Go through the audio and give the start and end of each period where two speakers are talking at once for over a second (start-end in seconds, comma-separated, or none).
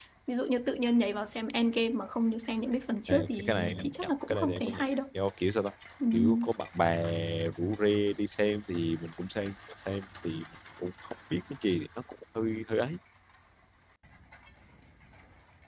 3.1-4.9